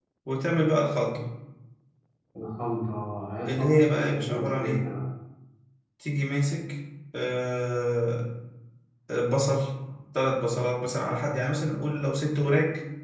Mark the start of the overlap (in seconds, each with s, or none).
3.5 s